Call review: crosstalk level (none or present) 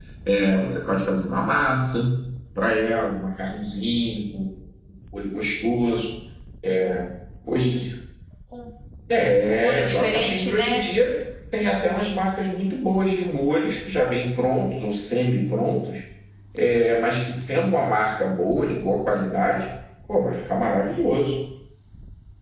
present